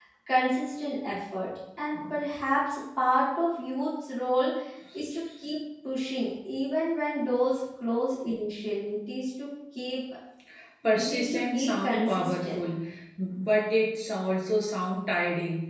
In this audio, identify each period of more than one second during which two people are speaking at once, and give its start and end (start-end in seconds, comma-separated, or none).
11.0-12.6